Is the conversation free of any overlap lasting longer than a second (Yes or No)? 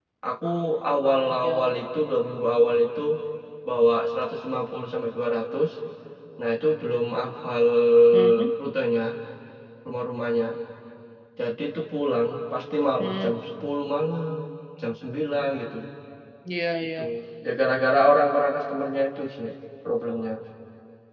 Yes